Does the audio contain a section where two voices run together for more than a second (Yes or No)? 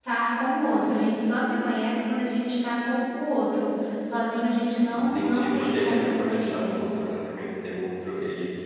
Yes